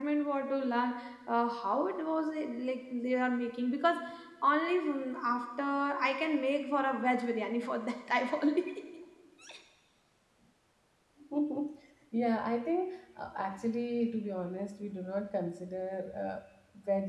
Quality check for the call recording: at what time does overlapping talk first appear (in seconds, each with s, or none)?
none